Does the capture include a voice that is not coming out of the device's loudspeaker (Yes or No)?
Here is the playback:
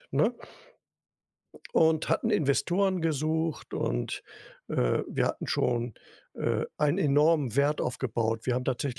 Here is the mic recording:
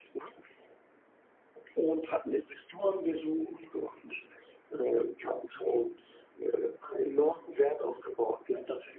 No